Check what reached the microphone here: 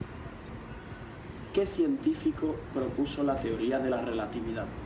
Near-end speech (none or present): none